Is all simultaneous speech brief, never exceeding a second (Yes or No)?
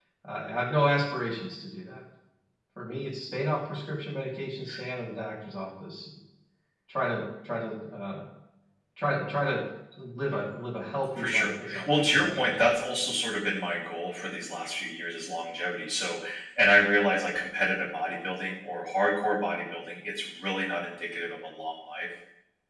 No